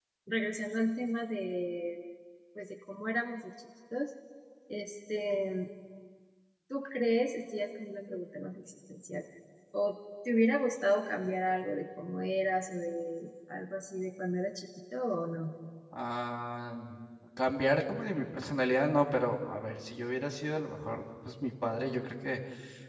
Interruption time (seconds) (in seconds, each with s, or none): none